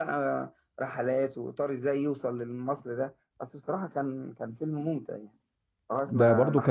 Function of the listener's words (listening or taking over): taking over